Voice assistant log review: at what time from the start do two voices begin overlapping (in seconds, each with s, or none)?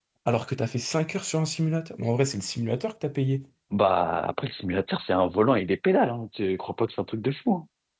none